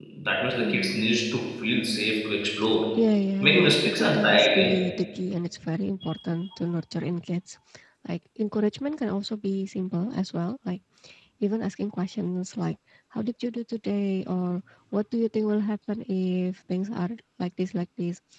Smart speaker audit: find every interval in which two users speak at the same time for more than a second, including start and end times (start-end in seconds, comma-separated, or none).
3.4-4.8